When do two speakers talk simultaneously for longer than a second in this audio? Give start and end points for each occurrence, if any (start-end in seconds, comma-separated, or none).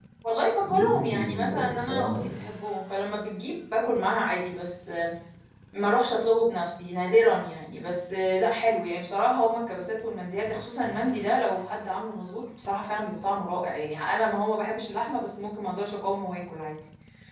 0.6-2.3